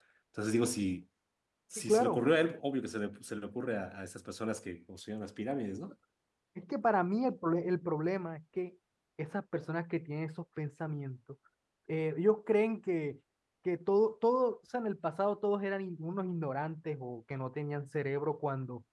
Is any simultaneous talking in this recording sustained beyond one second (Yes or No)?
No